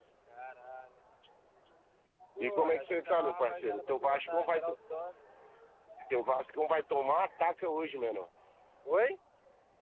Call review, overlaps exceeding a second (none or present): present